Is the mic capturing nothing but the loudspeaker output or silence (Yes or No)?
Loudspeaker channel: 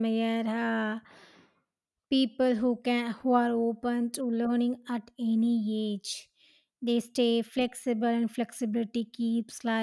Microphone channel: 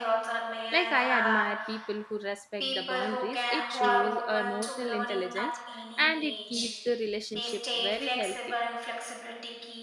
No